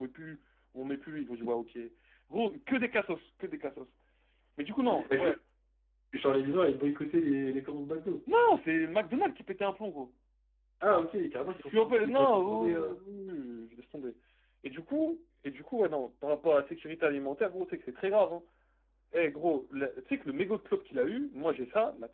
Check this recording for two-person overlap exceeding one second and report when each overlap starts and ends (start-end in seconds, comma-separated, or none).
11.6-12.9